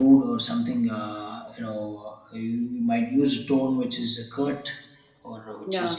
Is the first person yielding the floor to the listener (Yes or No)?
No